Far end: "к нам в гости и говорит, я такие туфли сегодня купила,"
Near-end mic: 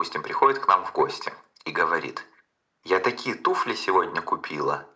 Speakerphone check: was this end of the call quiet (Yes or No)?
Yes